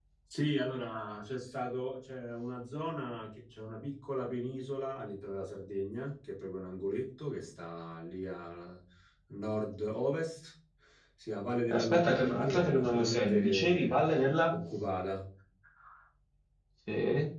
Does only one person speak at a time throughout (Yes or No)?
No